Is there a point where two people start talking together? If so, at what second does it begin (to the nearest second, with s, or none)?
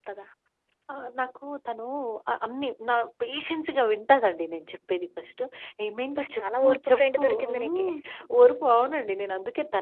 6 s